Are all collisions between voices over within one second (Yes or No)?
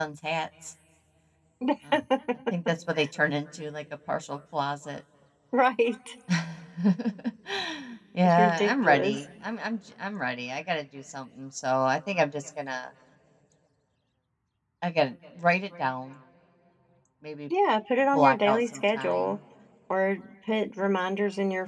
No